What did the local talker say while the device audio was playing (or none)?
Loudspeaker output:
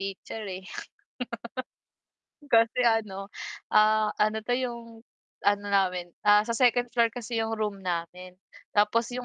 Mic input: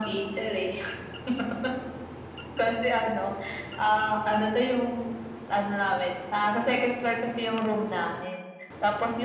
none